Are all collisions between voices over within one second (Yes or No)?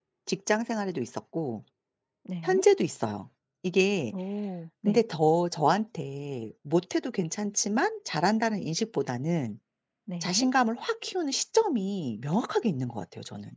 Yes